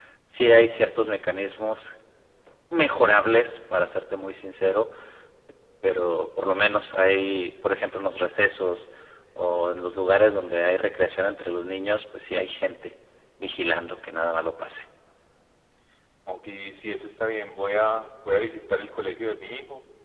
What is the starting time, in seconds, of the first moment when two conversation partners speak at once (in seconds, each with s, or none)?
none